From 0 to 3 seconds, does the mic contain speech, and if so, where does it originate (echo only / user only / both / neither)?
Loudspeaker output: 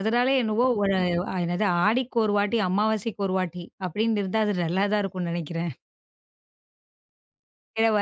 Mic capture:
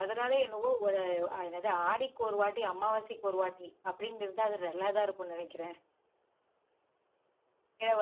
echo only